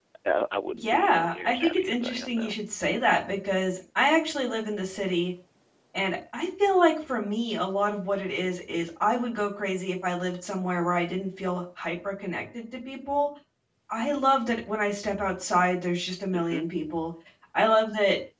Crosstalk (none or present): present